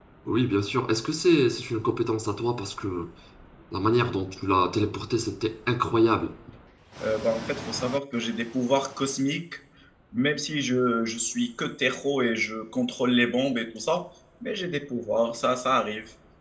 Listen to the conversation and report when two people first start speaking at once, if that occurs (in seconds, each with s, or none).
none